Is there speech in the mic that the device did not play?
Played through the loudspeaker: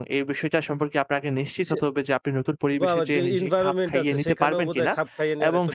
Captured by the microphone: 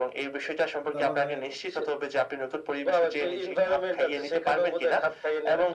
Yes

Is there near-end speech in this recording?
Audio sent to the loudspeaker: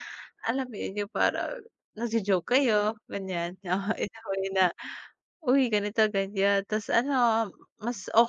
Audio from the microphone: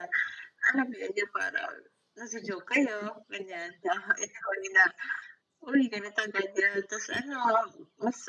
No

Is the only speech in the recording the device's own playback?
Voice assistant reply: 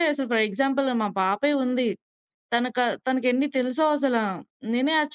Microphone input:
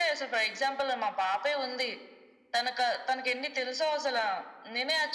Yes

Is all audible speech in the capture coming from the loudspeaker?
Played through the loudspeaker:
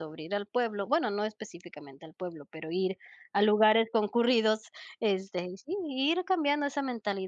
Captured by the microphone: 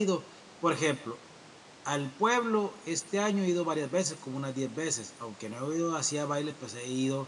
No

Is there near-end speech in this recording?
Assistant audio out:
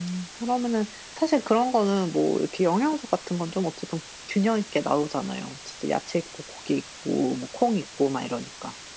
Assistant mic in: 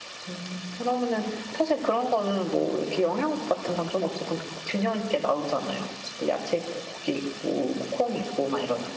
No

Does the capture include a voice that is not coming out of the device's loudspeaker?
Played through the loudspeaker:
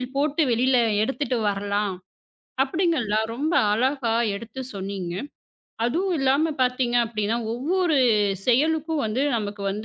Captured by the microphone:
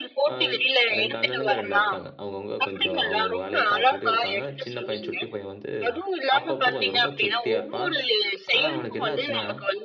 Yes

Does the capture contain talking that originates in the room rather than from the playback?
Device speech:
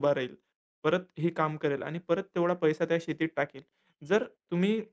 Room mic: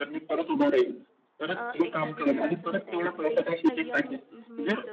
Yes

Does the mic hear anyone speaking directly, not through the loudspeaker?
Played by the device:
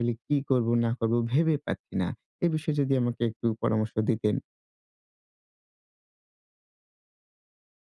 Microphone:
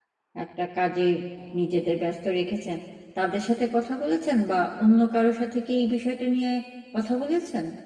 Yes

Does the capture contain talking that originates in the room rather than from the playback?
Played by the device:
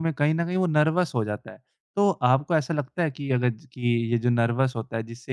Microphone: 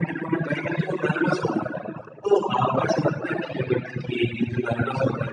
No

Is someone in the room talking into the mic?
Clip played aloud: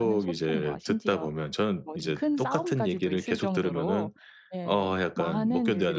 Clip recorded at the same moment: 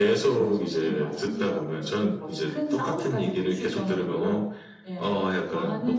No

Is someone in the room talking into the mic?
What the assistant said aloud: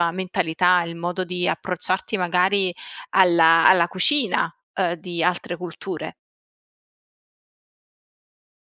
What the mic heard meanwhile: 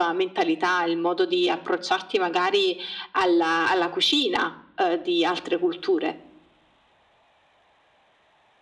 No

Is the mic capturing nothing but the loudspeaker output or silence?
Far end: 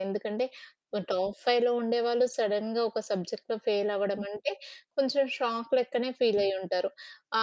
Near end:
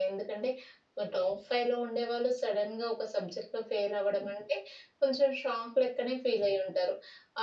Yes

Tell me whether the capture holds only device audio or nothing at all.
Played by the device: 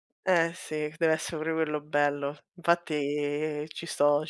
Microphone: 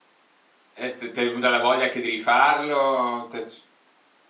No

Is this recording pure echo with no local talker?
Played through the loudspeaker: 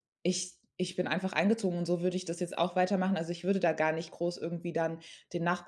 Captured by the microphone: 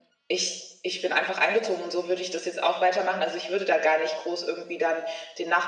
Yes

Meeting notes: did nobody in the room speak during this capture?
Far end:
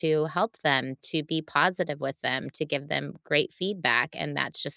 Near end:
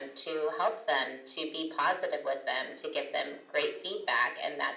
Yes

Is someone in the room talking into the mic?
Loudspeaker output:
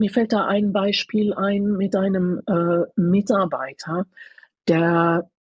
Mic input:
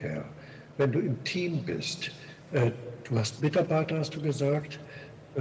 Yes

